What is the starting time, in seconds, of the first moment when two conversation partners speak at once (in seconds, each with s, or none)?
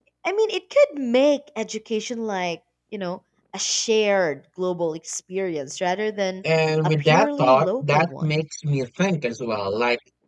7.0 s